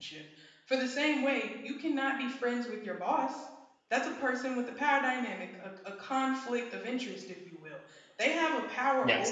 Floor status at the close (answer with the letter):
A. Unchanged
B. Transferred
A